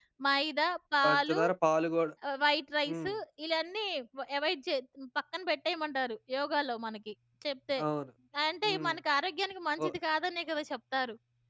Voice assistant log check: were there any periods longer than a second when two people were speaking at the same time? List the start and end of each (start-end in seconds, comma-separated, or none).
none